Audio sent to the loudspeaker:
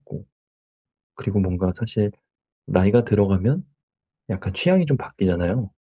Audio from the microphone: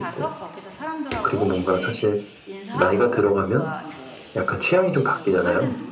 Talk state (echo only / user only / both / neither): both